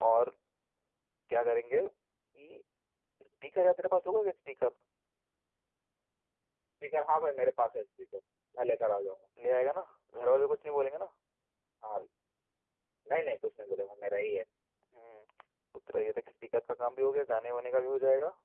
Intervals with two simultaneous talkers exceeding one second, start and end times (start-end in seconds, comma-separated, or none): none